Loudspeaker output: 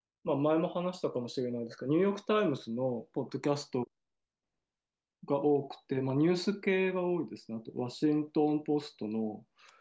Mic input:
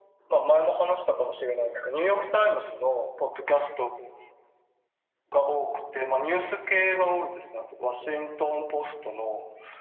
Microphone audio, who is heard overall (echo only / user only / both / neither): echo only